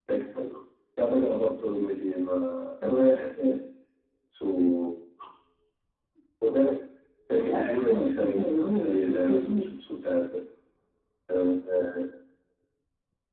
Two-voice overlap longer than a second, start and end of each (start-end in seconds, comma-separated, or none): 7.5-9.6